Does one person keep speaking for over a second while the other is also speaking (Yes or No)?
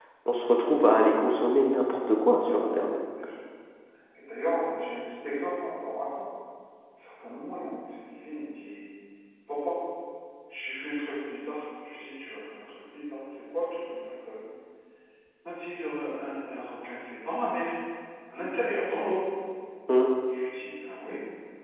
No